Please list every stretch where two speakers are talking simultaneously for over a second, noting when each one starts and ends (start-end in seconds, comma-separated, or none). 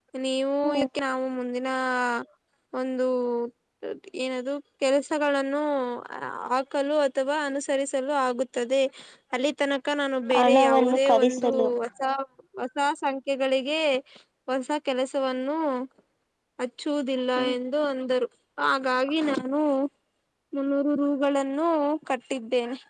10.4-11.7